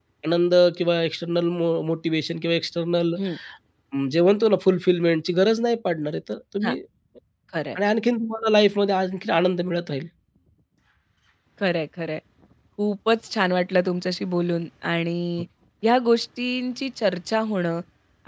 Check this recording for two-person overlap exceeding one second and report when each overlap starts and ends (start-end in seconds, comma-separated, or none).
none